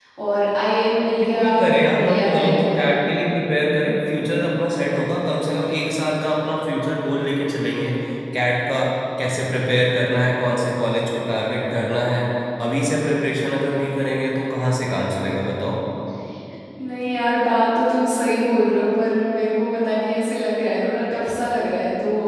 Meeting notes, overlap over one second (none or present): present